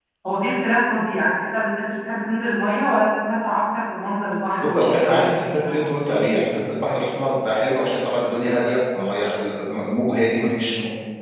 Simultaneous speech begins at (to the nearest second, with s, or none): 5 s